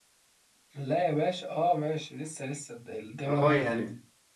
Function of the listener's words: taking over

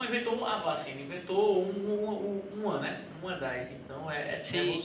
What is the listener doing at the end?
taking over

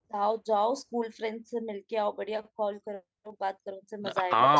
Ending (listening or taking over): taking over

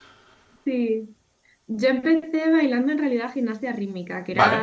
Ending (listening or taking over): listening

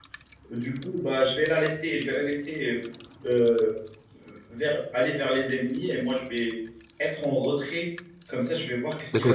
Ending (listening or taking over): taking over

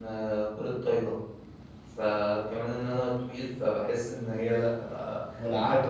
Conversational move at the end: taking over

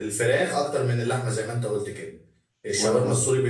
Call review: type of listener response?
listening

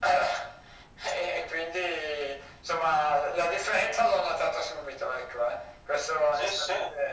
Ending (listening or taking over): listening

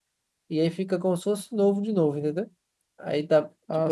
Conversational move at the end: listening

